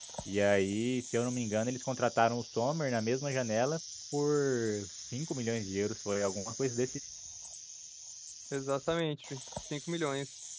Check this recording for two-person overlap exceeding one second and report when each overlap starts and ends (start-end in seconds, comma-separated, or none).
none